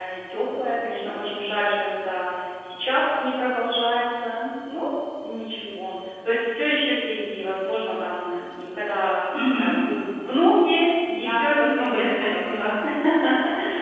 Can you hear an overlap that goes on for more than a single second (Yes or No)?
Yes